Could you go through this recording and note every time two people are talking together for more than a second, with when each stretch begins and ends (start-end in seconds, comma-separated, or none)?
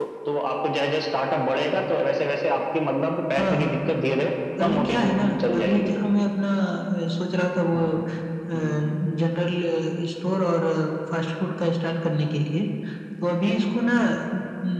4.6-5.9